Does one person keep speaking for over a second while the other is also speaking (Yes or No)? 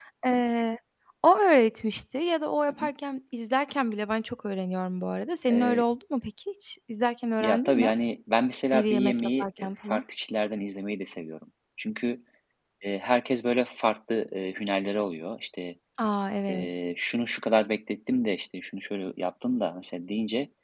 Yes